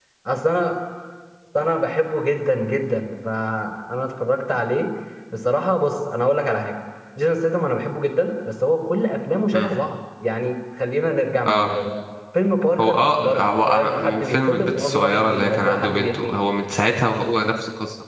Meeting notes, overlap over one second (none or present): present